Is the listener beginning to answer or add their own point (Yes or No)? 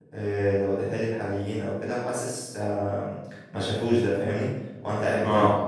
No